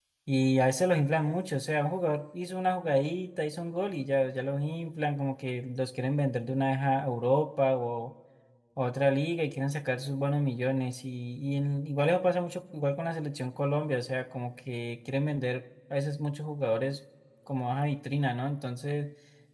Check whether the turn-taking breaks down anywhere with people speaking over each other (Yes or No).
No